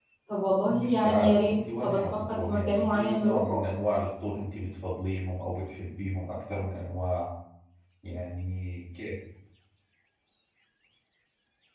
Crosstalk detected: Yes, from 0.6 s

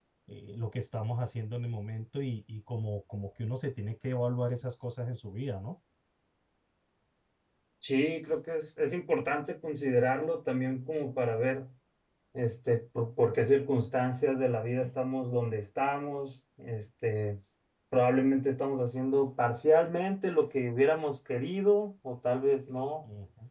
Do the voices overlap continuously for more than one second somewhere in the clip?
No

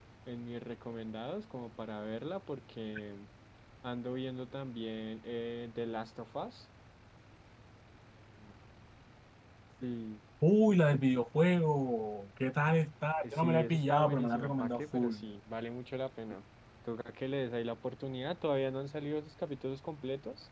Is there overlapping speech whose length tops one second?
Yes, from 13.2 s

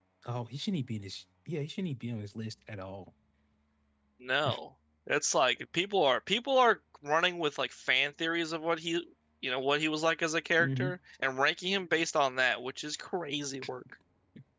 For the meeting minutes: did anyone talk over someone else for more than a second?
No

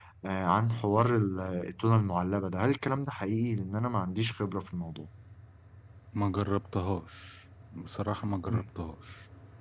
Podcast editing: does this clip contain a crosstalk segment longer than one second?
No

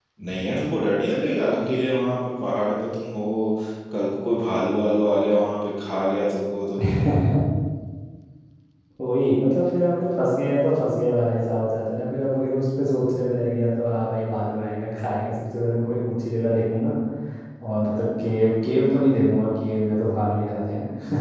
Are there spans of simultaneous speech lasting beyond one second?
No

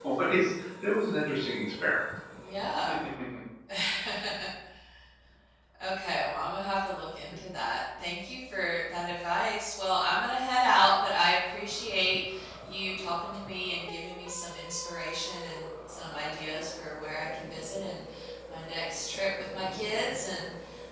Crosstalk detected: No

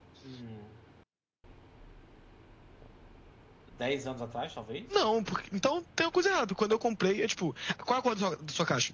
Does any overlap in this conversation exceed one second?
No

